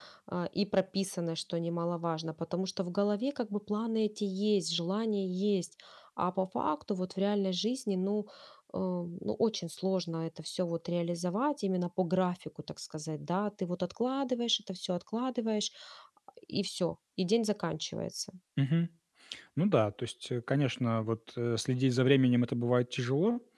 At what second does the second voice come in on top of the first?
none

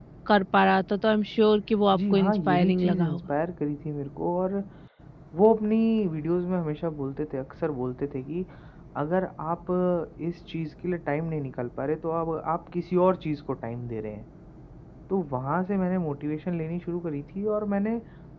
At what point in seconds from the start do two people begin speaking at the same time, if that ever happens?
1.9 s

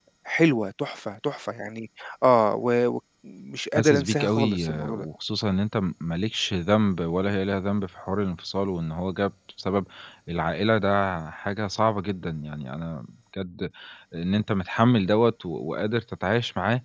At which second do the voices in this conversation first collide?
3.8 s

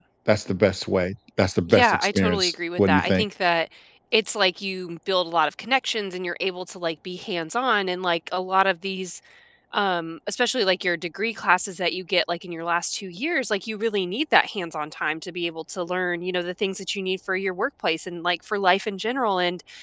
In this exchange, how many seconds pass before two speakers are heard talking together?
1.7 s

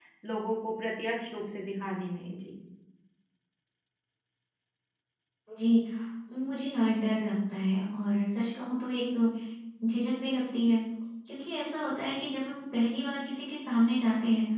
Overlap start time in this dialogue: none

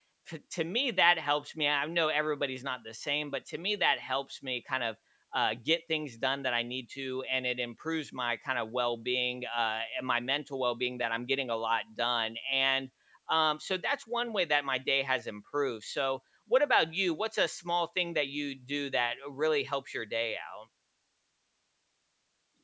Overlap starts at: none

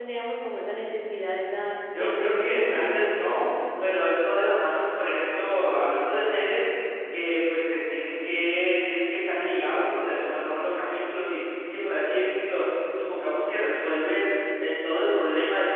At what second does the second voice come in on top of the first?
1.9 s

